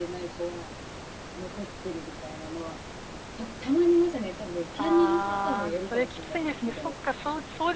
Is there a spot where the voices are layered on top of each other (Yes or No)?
Yes